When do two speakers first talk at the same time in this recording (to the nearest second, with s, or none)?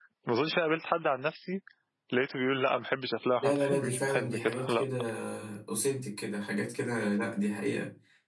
3 s